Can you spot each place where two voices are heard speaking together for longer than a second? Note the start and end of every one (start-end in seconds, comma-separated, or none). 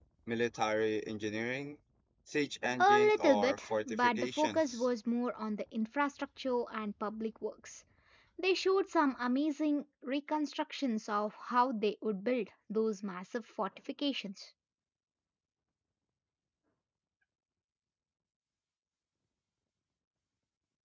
2.8-4.9